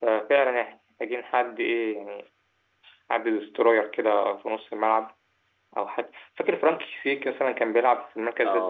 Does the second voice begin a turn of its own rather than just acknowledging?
Yes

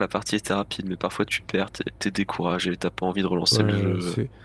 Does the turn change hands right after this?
Yes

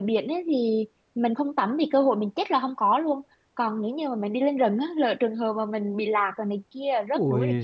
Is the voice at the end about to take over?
Yes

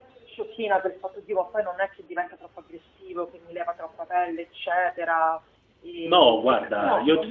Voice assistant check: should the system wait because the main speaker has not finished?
No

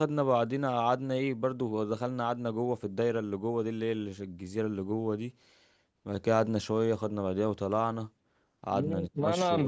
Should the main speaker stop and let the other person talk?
Yes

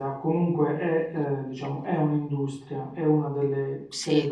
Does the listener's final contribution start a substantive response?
No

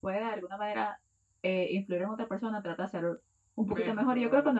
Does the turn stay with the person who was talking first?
Yes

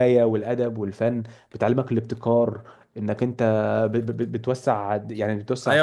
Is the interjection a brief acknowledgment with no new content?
No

